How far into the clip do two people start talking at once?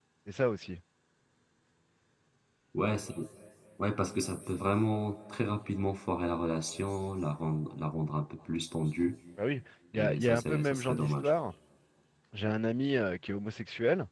10 s

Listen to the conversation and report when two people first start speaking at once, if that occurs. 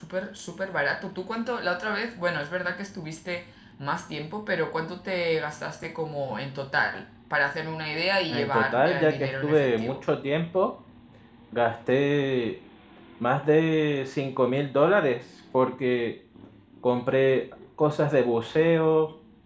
8 s

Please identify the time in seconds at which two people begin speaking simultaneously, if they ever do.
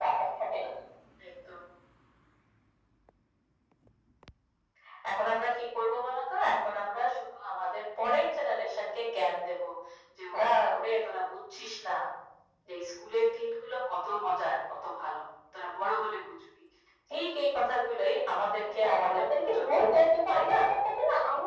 19 s

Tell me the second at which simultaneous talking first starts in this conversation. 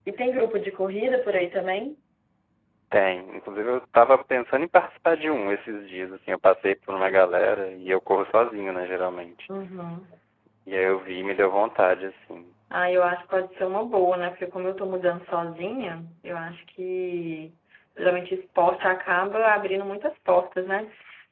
none

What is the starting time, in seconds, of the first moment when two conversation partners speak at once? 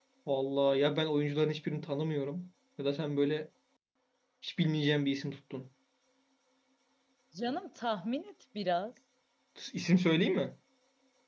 none

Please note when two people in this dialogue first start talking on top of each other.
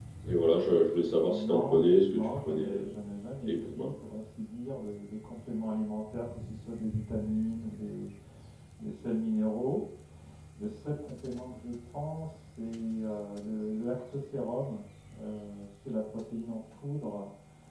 1 s

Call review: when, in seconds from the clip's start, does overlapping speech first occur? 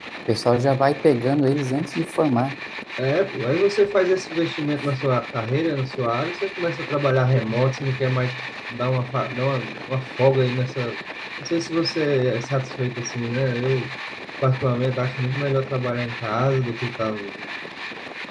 none

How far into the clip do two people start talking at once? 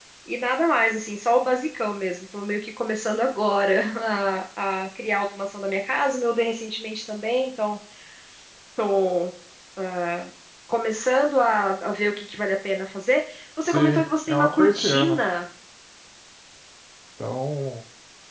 14 s

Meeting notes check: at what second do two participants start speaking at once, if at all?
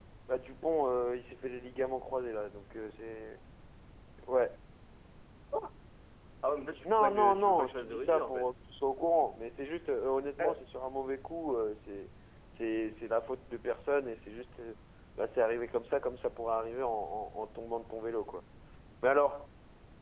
7 s

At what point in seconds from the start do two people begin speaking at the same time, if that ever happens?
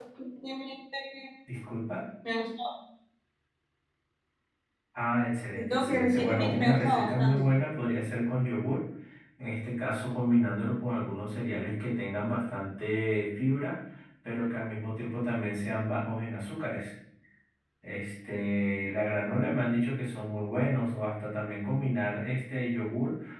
6 s

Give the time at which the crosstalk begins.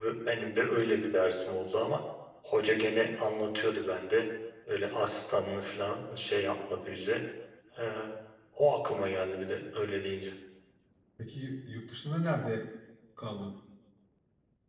none

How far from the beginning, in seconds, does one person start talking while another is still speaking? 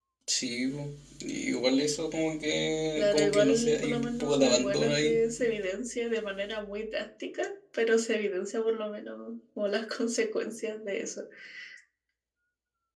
3 s

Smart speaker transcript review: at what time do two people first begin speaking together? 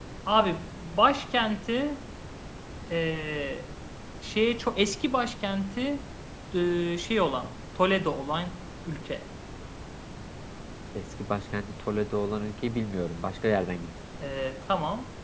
none

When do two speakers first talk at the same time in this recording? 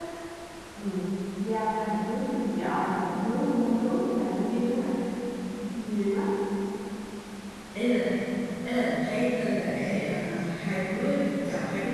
none

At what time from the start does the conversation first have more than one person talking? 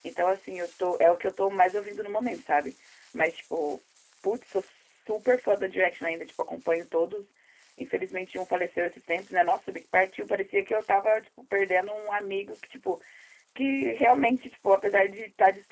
none

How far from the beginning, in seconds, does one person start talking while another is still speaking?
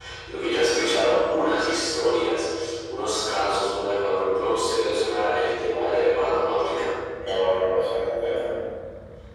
none

